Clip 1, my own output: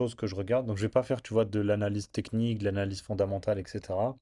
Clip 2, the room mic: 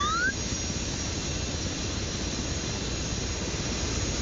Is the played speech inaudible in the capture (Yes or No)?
Yes